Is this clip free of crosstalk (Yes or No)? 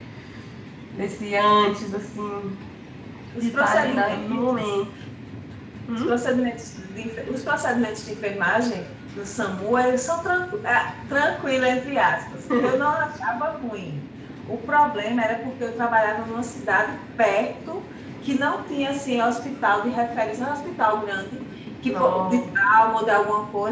No